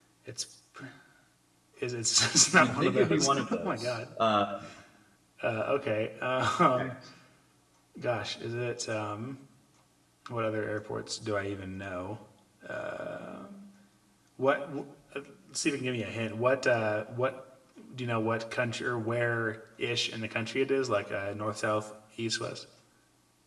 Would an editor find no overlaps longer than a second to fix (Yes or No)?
No